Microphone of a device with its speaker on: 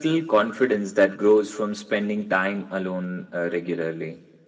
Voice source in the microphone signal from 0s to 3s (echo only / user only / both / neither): echo only